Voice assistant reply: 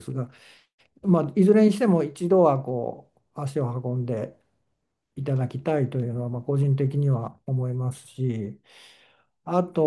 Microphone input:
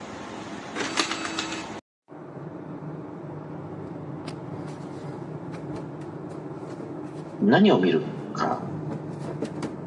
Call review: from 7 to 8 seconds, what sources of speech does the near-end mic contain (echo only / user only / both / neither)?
user only